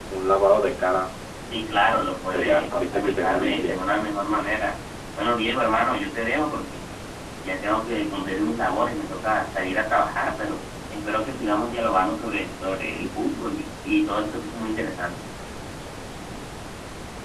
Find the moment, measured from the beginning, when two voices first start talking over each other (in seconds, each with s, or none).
1.8 s